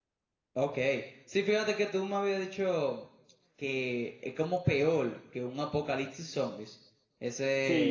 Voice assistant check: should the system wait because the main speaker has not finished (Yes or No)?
No